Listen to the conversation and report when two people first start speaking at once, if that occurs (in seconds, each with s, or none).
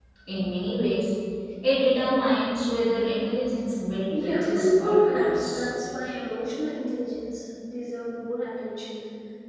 4.1 s